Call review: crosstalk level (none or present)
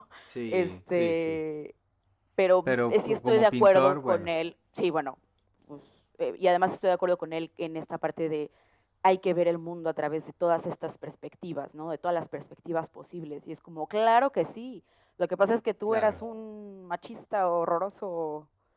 present